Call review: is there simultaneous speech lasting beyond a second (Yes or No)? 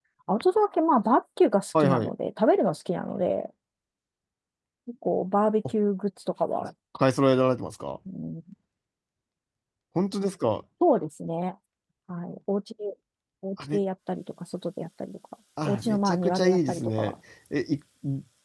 Yes